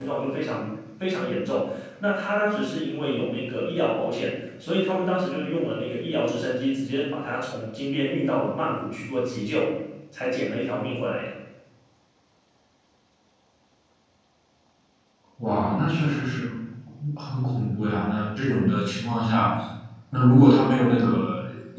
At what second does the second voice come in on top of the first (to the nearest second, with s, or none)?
none